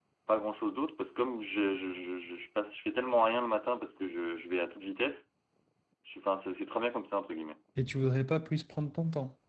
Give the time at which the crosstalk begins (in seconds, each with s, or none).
none